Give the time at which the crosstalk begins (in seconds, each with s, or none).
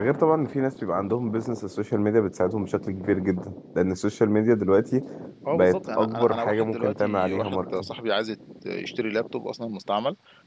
5.5 s